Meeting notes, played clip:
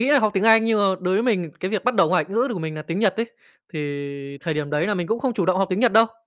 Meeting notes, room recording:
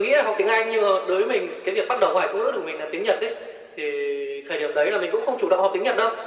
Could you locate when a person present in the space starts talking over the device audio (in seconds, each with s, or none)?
none